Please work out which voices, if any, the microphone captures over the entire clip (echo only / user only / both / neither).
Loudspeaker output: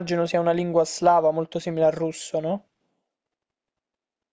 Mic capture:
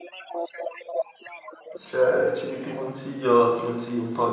both